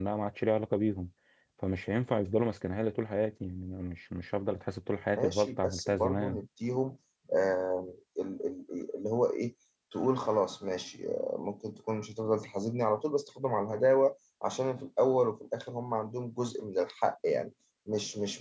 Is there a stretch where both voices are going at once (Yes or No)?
Yes